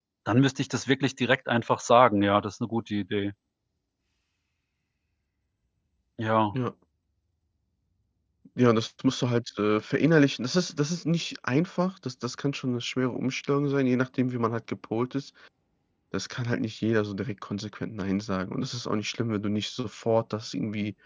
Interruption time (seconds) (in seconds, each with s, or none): none